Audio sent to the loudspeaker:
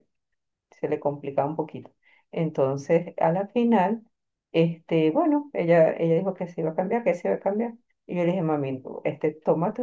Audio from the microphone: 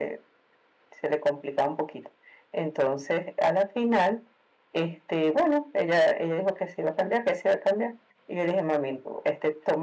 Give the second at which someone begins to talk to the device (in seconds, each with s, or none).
none